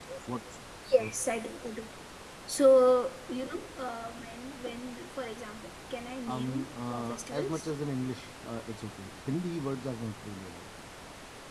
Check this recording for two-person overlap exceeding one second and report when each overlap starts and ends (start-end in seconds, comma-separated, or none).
6.3-7.7